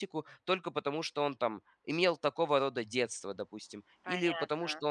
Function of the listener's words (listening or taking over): listening